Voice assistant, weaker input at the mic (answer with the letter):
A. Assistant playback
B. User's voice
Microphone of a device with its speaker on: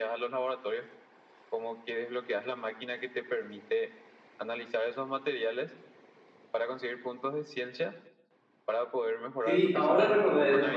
A